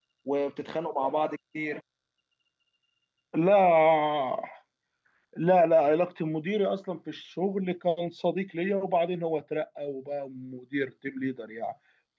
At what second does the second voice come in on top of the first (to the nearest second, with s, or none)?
none